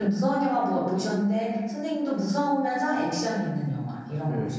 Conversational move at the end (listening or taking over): taking over